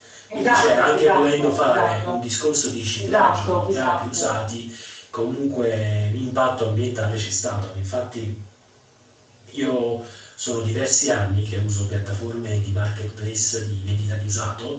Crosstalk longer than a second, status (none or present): present